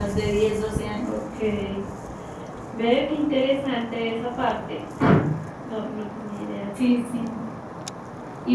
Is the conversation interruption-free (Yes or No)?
Yes